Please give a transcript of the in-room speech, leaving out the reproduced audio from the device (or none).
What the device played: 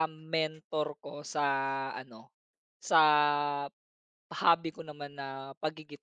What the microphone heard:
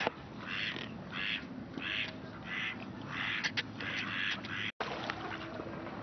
none